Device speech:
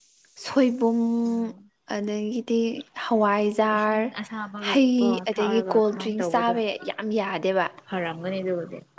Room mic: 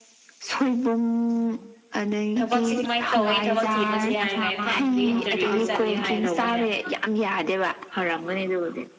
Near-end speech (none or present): present